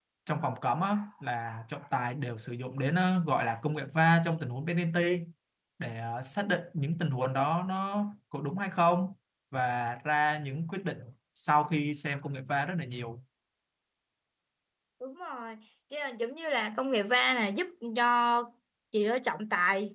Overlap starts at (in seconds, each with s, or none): none